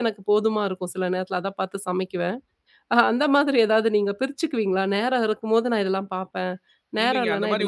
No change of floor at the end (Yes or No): No